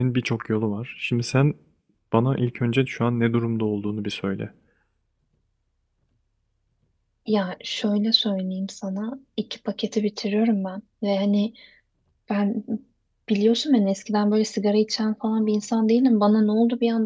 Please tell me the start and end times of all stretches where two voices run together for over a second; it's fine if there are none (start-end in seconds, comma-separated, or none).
none